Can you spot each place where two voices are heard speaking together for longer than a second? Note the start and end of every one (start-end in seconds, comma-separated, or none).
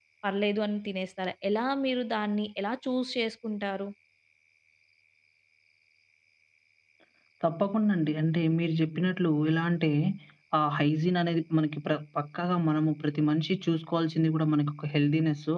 none